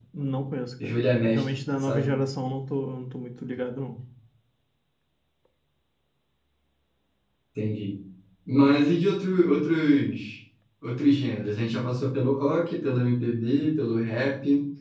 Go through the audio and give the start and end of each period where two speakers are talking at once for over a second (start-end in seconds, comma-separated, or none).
0.8-2.1